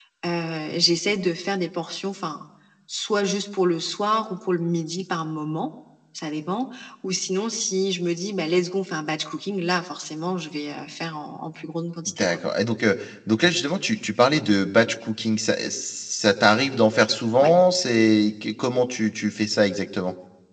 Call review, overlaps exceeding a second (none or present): none